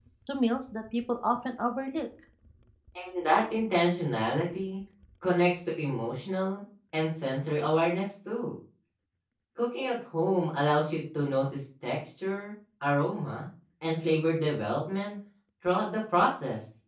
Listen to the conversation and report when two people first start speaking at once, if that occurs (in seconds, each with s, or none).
none